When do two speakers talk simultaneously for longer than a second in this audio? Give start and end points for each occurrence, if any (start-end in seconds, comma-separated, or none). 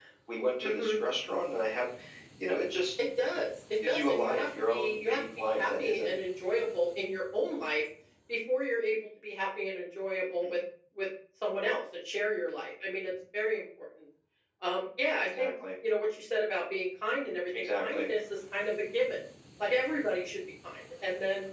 3.9-6.2